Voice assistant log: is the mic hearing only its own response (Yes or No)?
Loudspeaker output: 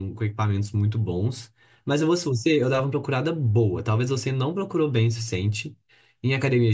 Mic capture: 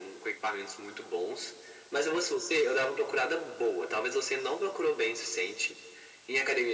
Yes